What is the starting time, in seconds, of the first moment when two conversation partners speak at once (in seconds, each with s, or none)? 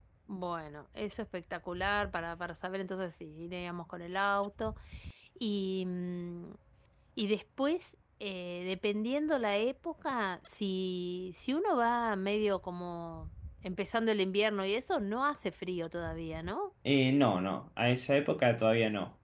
none